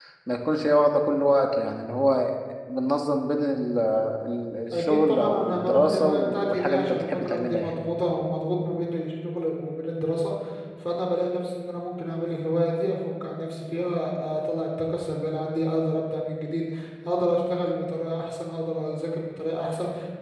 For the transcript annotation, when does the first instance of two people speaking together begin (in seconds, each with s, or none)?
4.7 s